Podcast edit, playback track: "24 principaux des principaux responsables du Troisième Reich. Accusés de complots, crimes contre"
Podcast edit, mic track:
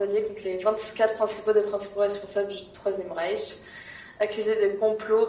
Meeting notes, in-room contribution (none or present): none